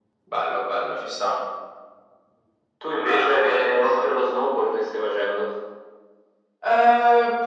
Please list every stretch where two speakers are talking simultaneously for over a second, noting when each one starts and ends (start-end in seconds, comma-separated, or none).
none